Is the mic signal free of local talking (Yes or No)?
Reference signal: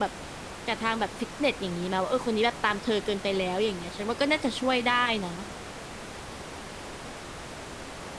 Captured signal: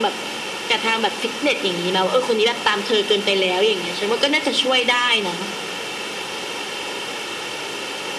Yes